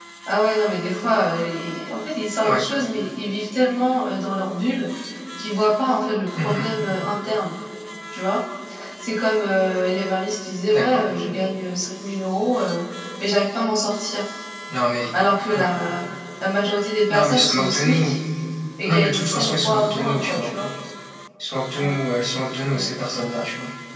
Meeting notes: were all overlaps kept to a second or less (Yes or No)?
No